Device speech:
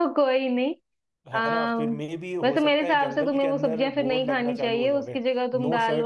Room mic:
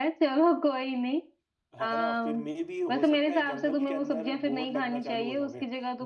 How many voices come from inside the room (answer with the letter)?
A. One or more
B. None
B